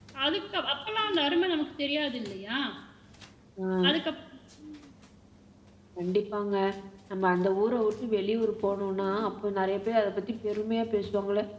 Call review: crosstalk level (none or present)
none